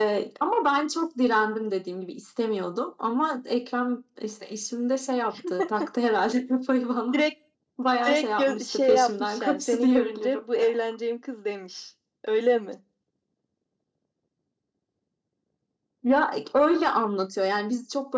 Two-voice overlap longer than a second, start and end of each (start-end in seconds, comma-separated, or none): 8.1-10.4